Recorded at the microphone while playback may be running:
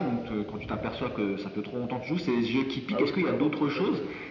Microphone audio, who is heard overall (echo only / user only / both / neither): both